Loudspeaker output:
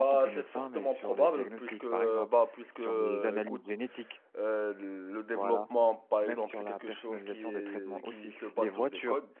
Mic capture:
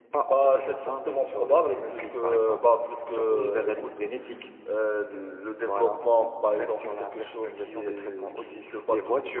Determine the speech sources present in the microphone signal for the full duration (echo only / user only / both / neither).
echo only